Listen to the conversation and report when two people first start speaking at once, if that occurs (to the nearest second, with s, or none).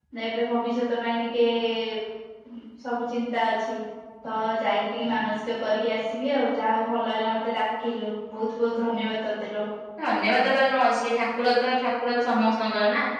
none